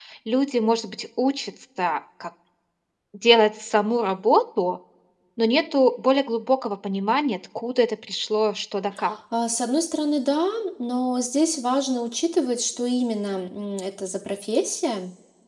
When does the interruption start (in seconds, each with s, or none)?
none